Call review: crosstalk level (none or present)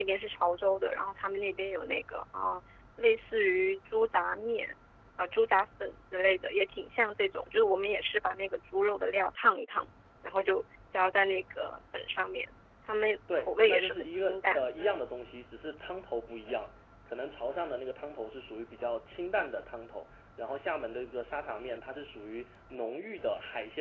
present